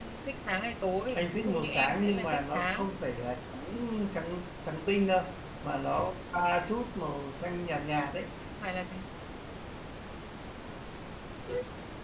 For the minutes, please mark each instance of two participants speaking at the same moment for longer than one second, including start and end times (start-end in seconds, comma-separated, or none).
1.1-2.9